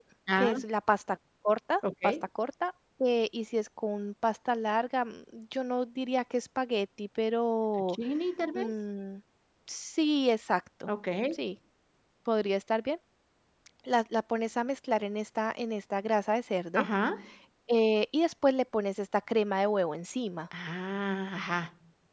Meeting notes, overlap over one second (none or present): none